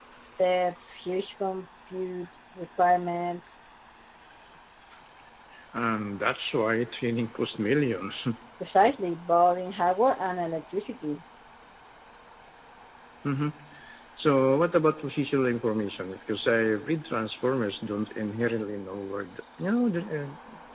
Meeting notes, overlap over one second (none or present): none